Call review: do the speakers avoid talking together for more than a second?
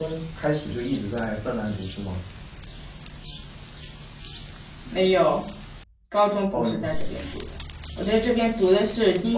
Yes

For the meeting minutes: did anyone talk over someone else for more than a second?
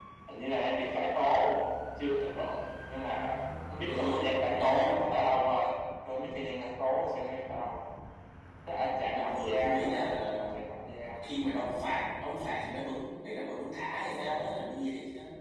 Yes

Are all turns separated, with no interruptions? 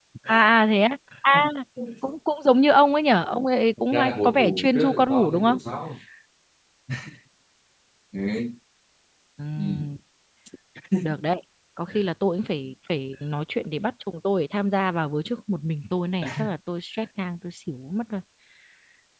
No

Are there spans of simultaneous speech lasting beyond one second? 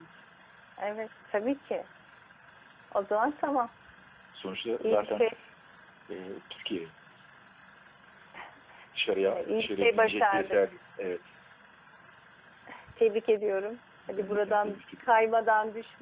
Yes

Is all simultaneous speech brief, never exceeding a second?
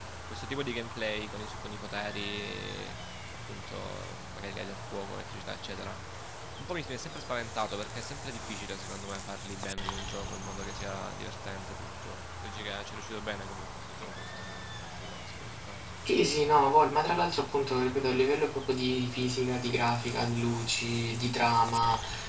Yes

